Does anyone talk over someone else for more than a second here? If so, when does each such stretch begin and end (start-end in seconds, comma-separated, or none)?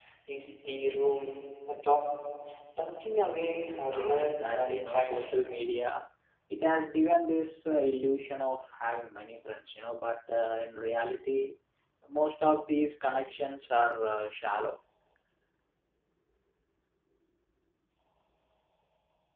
3.9-5.4